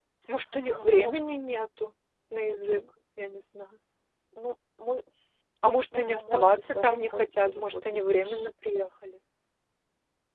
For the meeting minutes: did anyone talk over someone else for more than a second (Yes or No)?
Yes